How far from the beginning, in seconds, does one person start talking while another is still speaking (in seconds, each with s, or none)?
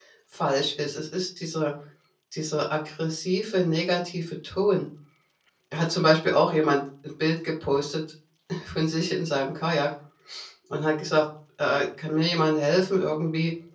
none